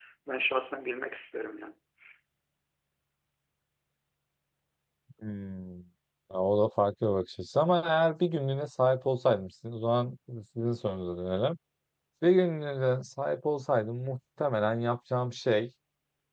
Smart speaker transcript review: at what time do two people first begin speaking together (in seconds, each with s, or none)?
none